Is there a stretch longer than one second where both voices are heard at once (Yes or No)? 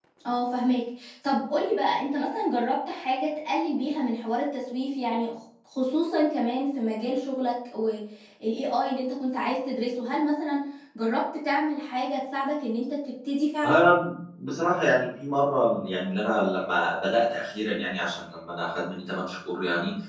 No